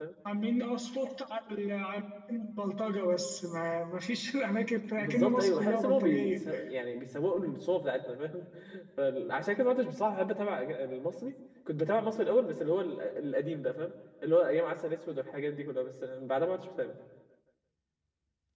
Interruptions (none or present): present